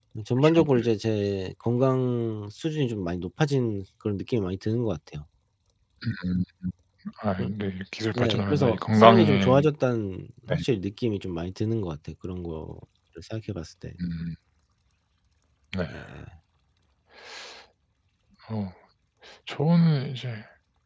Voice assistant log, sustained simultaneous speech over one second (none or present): present